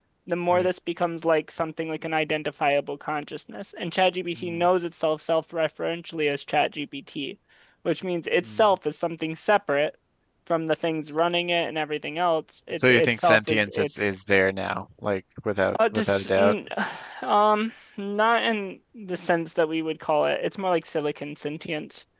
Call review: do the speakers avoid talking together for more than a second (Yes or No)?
No